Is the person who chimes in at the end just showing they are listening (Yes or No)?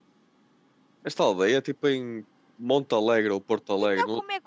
No